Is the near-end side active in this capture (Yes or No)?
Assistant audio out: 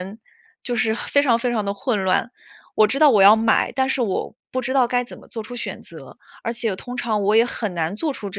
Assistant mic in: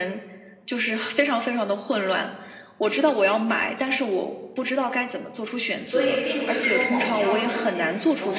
Yes